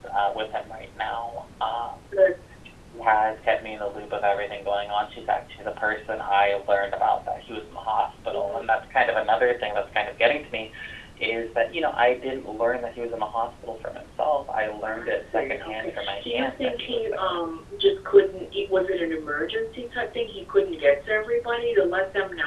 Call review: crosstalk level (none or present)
present